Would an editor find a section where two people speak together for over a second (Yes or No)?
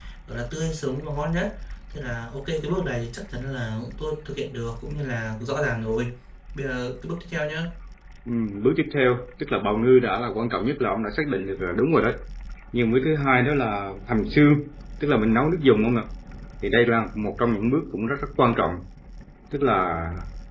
No